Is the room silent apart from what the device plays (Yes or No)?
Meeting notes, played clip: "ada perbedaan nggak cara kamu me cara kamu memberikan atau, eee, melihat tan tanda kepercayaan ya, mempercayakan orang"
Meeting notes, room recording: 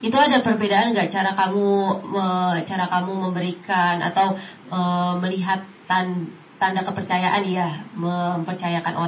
Yes